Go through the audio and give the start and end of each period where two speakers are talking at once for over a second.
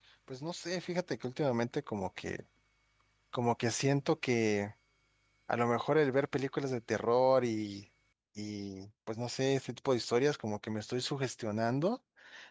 none

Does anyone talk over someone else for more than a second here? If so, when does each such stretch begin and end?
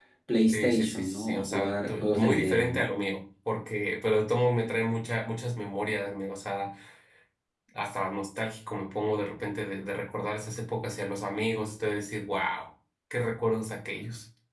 0.5-2.9

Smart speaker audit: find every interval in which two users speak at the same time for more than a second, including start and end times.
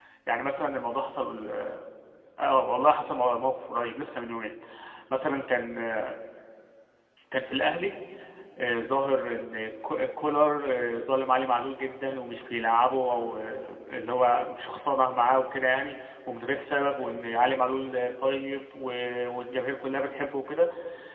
none

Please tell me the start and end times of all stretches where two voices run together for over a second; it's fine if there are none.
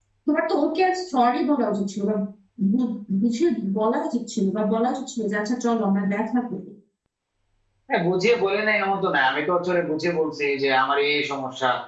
none

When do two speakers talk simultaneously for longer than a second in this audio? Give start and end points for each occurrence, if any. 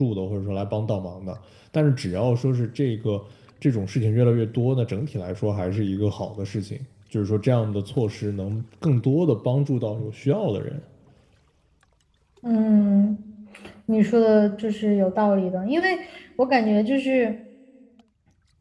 none

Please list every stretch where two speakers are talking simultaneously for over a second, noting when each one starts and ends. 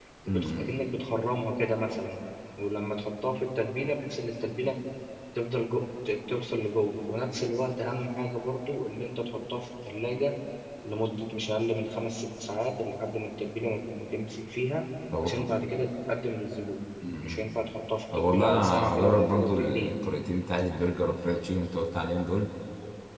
18.1-19.9

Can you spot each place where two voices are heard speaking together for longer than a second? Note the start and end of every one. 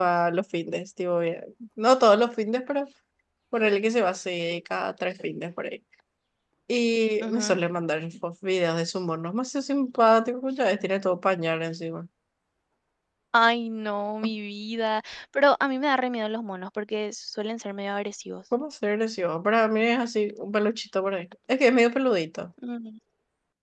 none

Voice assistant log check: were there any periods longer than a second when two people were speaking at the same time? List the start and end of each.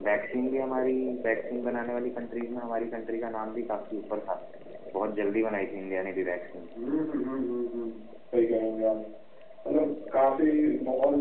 none

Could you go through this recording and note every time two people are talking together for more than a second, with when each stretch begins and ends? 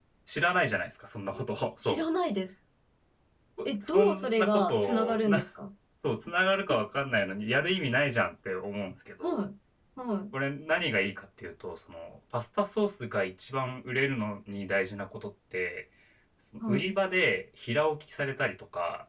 3.6-5.5

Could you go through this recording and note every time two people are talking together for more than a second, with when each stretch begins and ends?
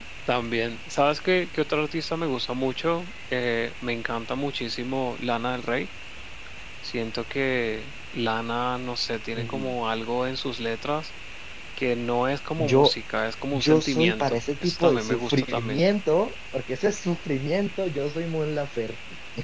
13.5-15.8

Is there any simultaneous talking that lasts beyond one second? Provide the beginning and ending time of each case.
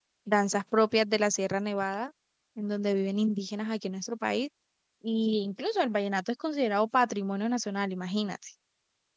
none

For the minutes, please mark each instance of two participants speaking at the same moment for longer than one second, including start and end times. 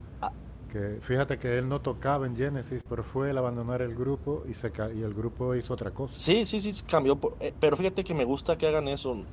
none

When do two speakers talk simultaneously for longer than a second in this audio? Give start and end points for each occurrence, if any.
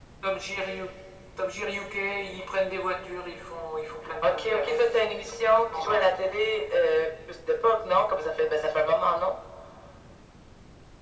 4.2-6.1

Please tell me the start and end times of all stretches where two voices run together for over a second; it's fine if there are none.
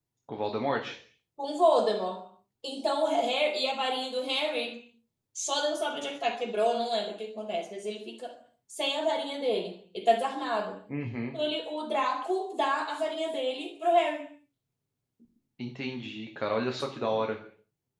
none

